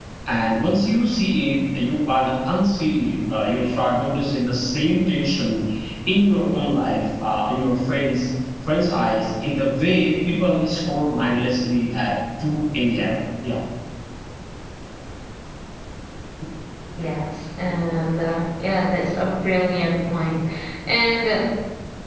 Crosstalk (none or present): none